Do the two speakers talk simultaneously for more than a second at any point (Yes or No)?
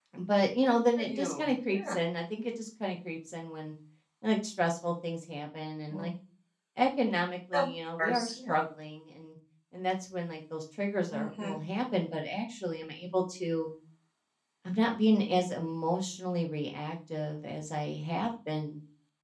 Yes